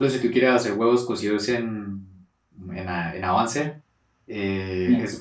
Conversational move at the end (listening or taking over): listening